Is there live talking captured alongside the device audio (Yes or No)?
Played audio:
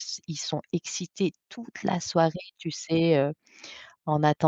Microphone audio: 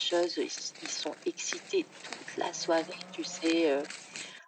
No